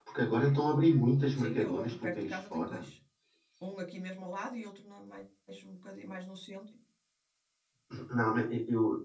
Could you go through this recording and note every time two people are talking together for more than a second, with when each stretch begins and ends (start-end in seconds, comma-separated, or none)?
1.4-2.9